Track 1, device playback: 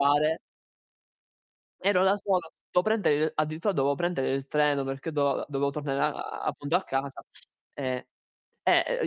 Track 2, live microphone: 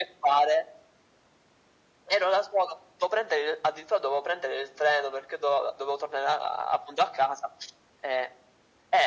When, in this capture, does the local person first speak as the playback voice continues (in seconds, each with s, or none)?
none